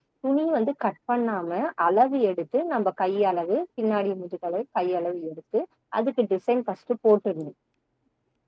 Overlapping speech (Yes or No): No